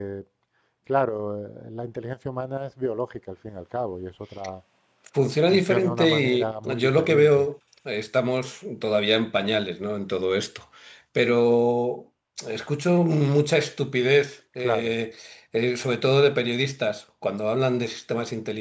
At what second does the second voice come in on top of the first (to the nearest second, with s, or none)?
5 s